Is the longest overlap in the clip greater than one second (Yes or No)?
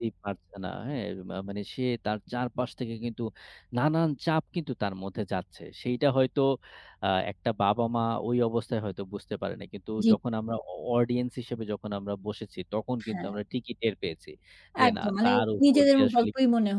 Yes